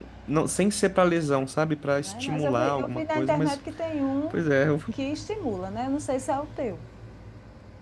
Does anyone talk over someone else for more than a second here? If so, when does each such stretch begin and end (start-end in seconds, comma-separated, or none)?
2.0-3.6